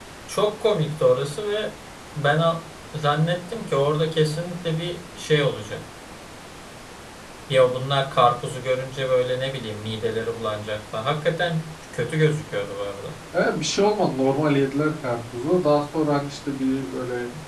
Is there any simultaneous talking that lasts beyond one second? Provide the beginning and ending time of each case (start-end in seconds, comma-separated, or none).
none